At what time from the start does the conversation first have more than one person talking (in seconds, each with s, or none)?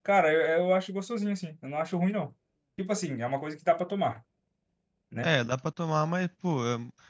none